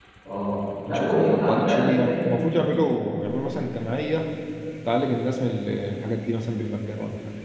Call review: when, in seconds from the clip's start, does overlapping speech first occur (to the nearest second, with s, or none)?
1 s